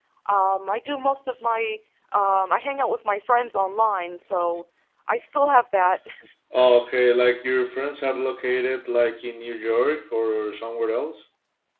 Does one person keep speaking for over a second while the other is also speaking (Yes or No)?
No